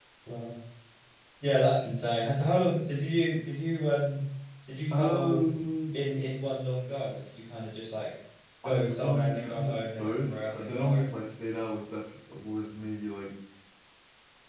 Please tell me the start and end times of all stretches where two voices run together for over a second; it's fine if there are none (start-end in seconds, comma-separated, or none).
8.6-11.1